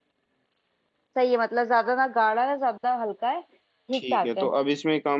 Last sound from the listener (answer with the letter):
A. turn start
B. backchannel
A